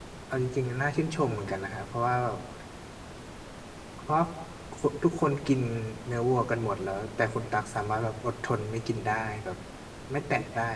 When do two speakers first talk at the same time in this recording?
none

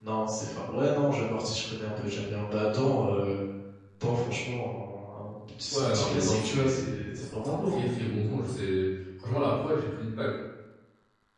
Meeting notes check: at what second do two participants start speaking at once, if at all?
5.7 s

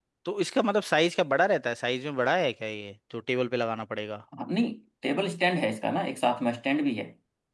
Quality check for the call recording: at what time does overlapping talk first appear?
none

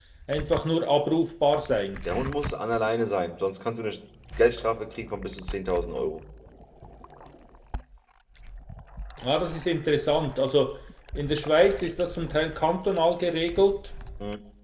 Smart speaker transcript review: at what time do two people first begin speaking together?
none

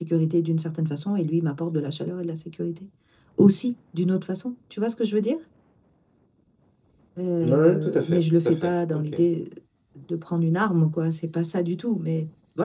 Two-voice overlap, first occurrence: 7.4 s

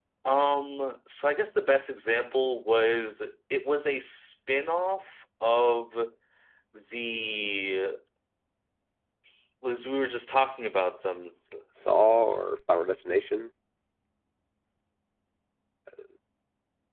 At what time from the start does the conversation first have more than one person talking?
none

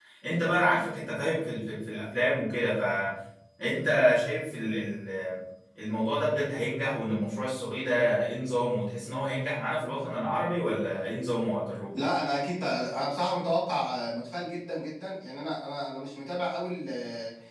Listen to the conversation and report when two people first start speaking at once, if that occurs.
none

